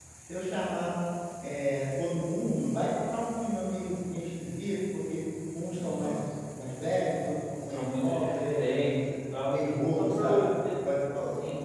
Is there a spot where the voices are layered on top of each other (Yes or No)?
Yes